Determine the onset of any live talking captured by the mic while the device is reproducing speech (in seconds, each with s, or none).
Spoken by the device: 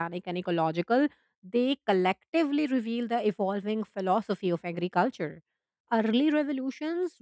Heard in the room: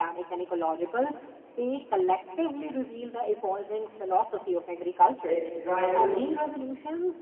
5.2 s